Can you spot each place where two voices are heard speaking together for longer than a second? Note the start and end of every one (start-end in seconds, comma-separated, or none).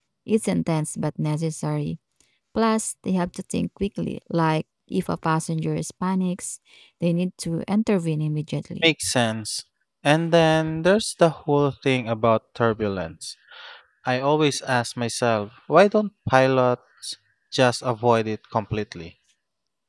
none